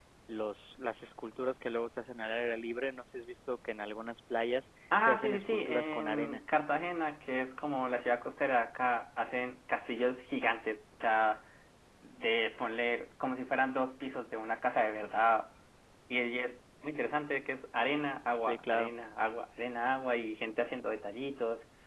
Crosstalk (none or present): present